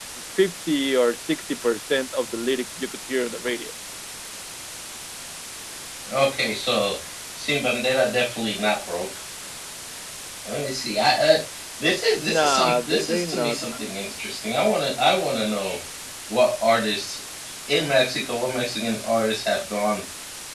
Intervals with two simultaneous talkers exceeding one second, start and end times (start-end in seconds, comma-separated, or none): 12.2-13.6